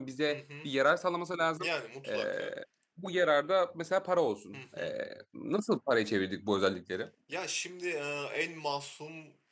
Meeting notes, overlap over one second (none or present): none